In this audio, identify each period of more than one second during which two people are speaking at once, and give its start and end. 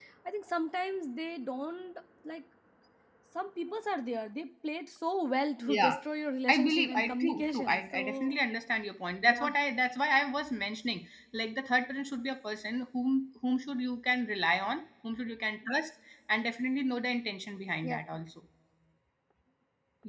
6.5-8.4

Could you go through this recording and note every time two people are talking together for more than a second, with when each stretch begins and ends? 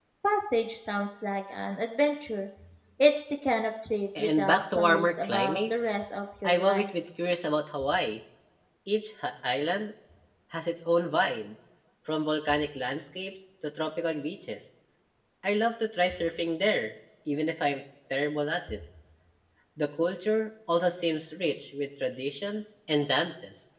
4.2-5.7

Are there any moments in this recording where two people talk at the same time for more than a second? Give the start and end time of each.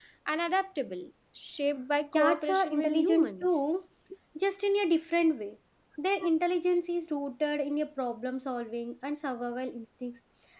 2.1-3.6

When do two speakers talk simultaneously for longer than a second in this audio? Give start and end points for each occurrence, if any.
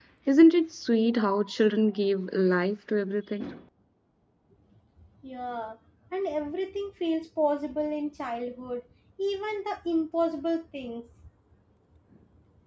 none

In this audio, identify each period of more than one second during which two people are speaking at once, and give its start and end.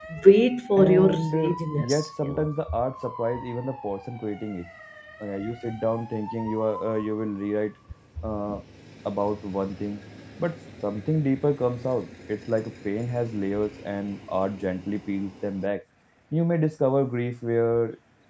0.8-2.5

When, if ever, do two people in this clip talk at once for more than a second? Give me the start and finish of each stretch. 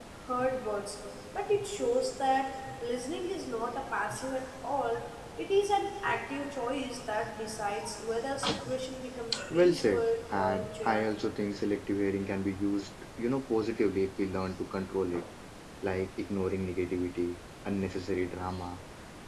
9.5-11.2

